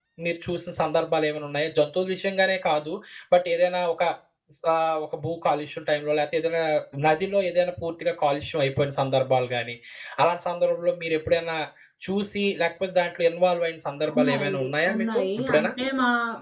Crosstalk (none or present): present